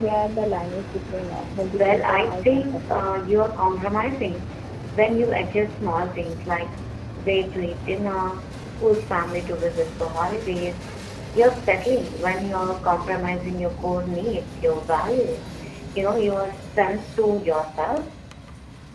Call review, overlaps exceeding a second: present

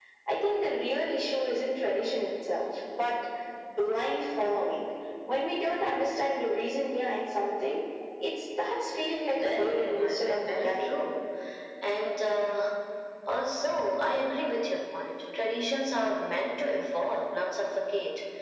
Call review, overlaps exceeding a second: present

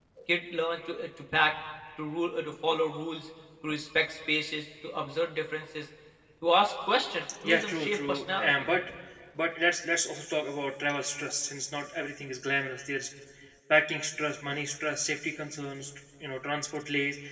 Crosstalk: present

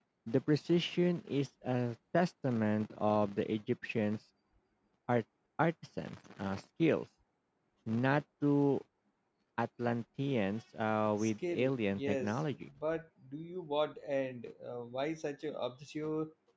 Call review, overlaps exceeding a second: present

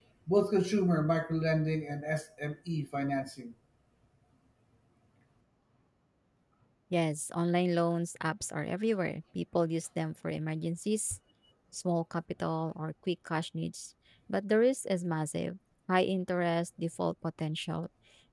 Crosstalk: none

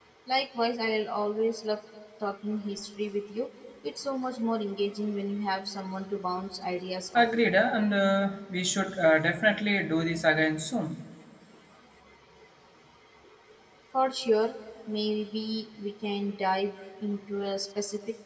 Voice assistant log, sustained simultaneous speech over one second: none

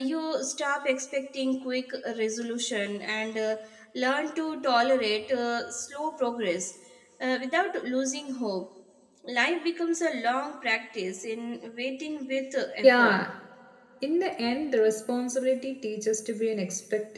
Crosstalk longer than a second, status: none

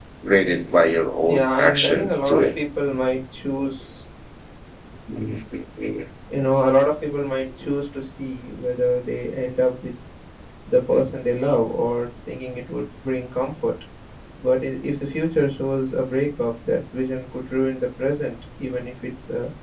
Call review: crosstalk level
present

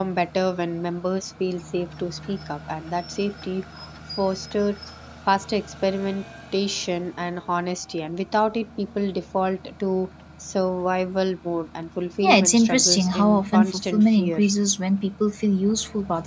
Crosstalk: present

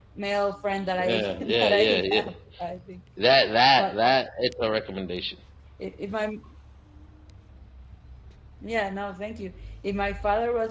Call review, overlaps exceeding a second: present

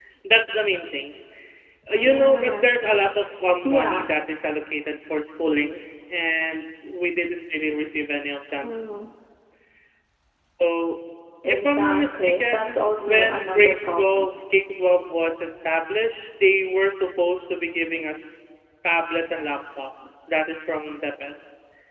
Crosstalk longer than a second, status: present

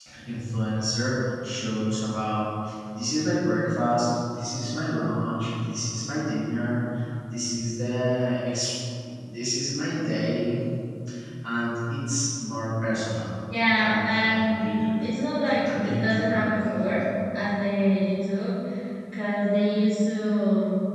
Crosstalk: present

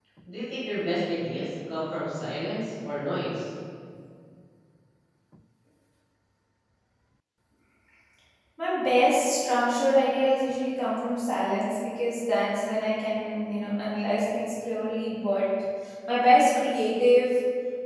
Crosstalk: none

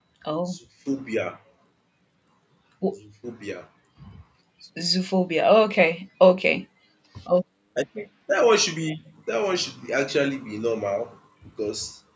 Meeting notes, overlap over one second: none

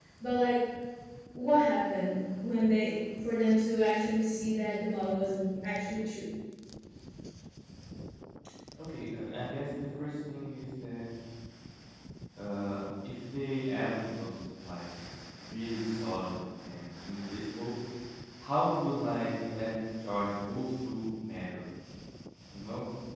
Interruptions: none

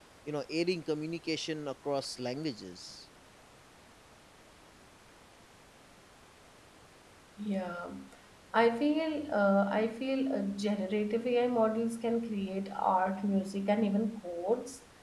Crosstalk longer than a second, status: none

